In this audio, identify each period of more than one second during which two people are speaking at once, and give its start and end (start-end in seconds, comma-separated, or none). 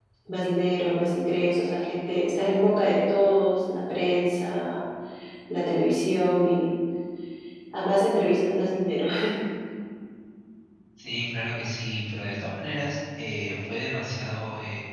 none